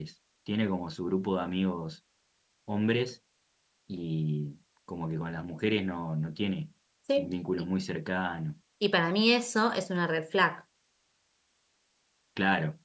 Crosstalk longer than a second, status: none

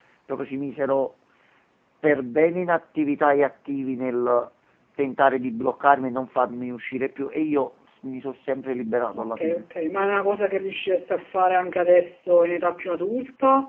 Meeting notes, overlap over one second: none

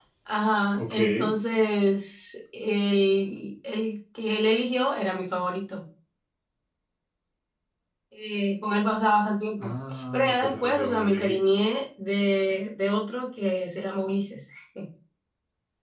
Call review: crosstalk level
present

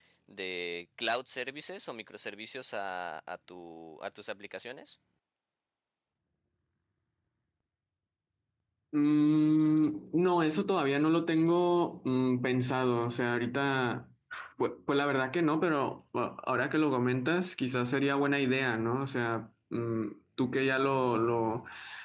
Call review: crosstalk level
none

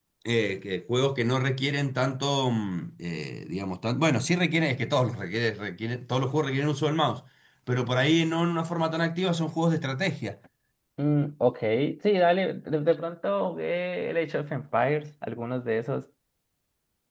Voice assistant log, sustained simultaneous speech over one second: none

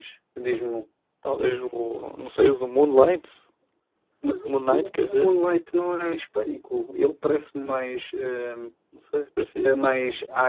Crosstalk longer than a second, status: none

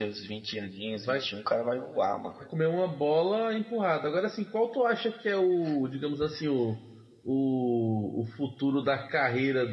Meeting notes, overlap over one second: none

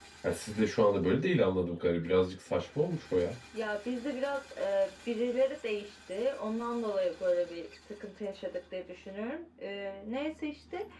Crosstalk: none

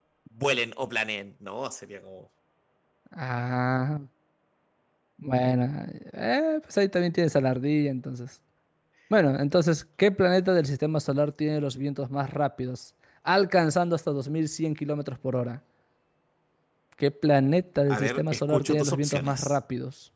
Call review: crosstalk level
present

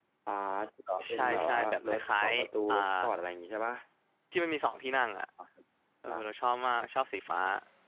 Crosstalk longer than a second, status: present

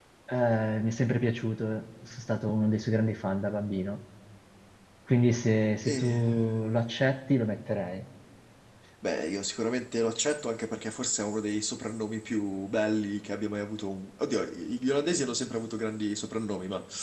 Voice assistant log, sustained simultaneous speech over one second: none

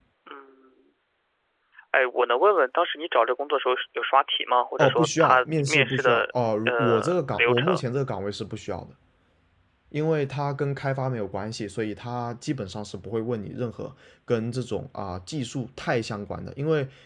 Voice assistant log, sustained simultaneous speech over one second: present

